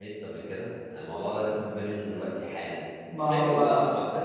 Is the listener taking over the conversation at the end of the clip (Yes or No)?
No